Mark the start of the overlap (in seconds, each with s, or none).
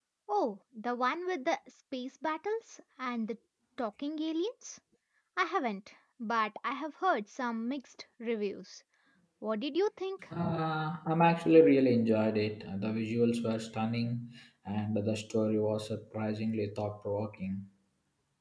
none